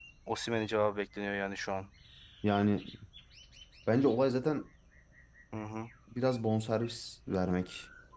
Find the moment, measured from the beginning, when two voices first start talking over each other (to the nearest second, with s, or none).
none